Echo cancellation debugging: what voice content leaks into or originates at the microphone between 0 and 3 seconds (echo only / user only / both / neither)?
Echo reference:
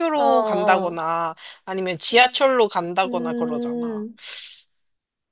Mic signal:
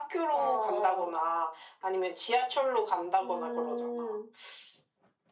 echo only